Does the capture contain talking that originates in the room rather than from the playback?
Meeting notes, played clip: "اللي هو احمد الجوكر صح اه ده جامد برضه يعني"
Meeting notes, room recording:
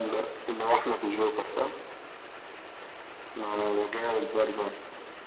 No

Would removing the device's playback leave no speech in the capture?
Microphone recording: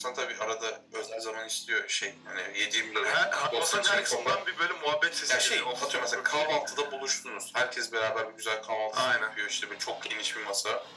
Yes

